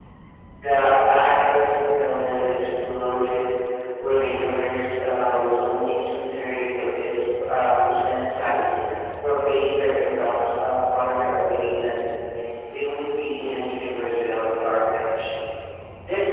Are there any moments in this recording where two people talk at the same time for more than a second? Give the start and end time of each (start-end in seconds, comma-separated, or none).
none